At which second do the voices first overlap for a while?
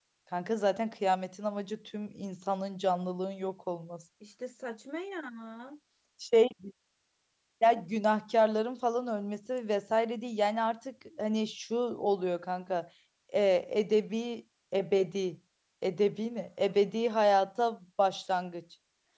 none

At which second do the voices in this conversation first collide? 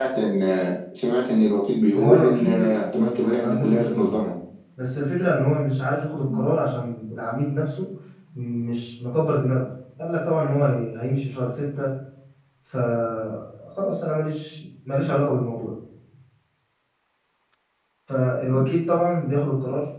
1.9 s

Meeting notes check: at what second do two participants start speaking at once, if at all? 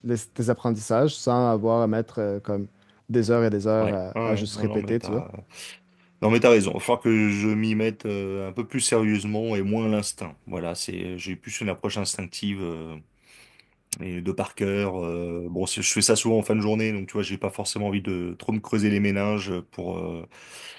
3.8 s

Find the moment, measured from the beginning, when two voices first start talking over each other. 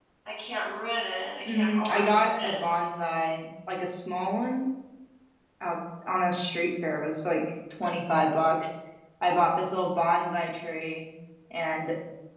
1.5 s

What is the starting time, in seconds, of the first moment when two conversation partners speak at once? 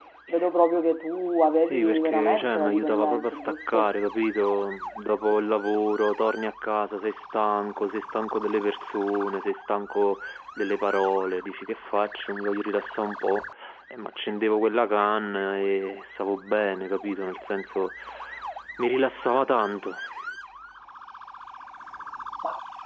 1.6 s

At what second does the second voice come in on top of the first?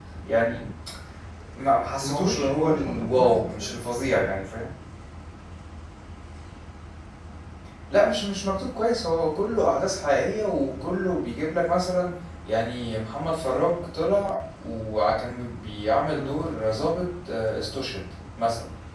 2.0 s

